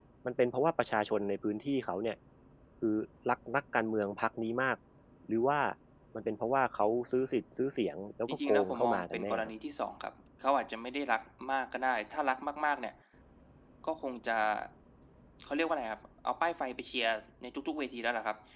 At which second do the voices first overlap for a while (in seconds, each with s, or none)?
8.3 s